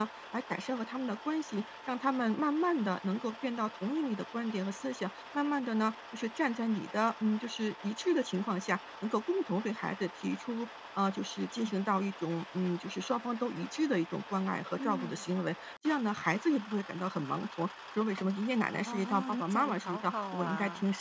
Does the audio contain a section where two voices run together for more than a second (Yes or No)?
Yes